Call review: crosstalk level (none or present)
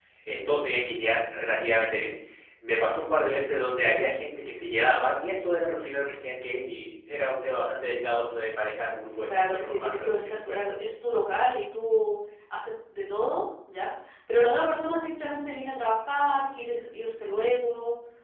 present